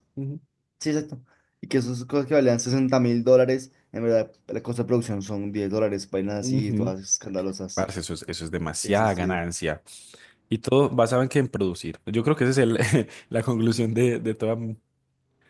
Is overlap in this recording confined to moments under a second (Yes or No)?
Yes